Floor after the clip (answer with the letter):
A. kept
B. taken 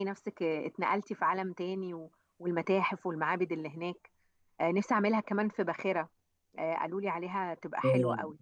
B